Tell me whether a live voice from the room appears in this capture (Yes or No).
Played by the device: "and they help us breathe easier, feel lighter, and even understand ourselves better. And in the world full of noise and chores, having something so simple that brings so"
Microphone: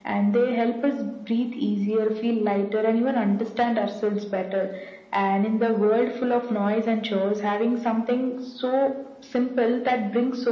No